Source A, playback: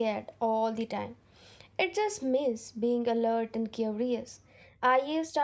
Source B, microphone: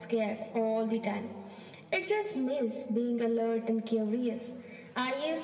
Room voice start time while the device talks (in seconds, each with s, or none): none